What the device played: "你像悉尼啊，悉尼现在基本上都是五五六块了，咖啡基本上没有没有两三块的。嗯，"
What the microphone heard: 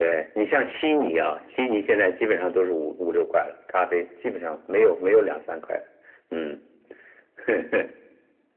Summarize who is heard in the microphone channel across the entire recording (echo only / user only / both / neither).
echo only